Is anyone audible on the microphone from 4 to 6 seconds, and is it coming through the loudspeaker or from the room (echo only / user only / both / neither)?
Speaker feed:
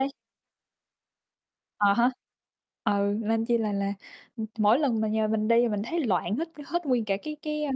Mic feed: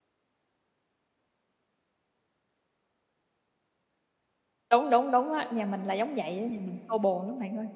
user only